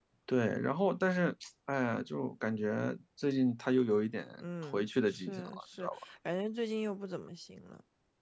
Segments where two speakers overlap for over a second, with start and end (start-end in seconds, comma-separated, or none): 4.7-6.0